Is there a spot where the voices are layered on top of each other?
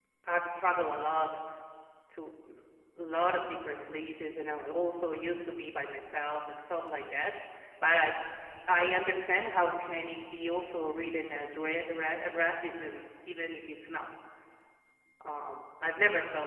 No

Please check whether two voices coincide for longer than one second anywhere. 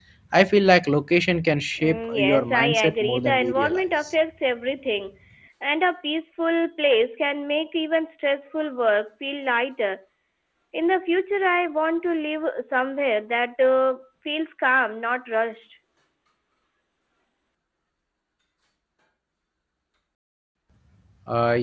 Yes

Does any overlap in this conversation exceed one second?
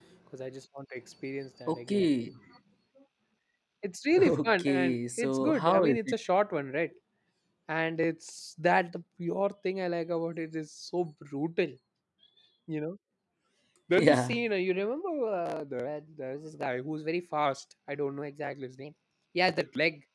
Yes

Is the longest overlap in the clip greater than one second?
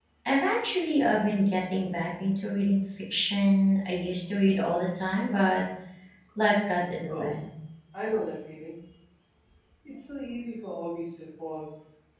No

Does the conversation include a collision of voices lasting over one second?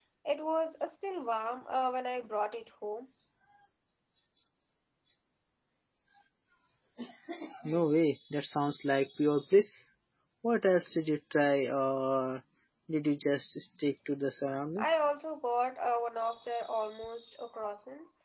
No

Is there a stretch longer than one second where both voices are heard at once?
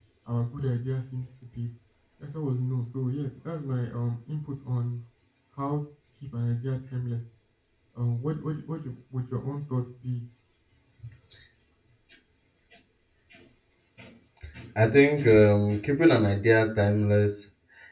No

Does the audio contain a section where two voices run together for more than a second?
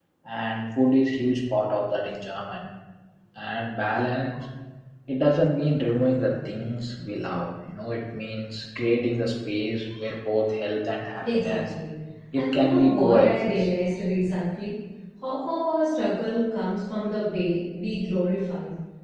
Yes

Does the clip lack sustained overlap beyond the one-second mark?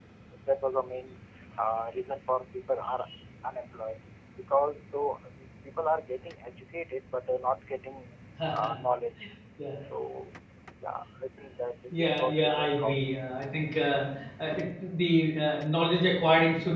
No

